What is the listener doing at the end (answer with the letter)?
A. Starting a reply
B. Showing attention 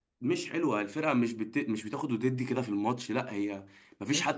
A